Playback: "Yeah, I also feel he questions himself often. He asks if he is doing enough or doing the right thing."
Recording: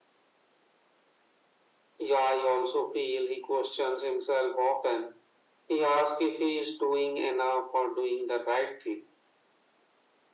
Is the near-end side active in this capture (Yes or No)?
No